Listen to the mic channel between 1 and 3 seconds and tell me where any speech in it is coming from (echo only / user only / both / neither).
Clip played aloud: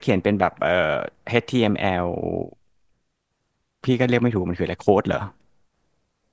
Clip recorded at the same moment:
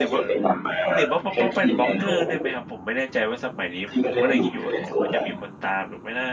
both